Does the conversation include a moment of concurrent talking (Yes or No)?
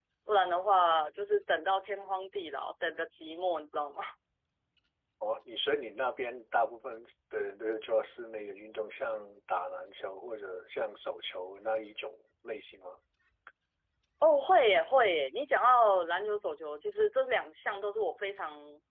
No